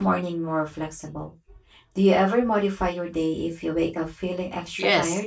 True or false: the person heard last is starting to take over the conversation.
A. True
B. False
A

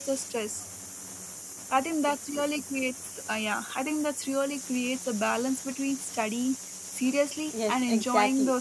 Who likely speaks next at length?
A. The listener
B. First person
A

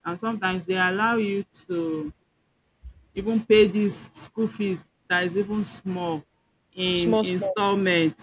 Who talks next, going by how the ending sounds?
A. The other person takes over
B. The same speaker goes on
B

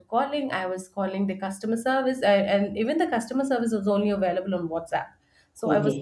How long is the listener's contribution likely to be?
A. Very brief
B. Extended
A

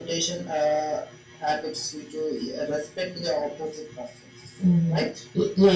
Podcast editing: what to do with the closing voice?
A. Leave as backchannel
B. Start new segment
B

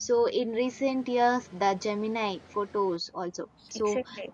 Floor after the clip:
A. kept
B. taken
B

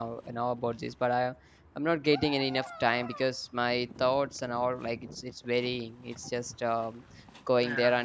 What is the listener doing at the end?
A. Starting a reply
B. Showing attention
B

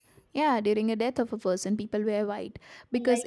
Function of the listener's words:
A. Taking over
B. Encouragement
B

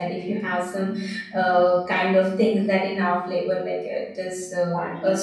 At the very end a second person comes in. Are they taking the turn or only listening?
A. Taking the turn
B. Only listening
A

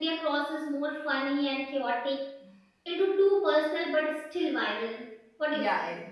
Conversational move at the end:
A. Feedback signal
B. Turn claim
B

